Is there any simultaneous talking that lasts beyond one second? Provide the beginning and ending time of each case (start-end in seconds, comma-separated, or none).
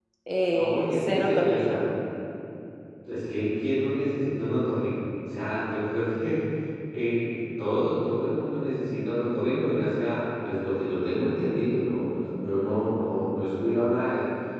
0.5-1.8